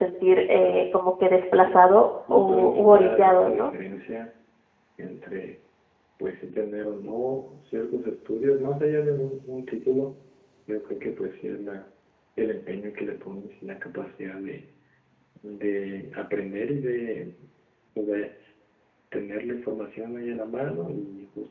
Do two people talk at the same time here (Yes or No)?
Yes